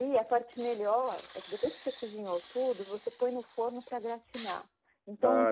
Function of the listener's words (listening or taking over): listening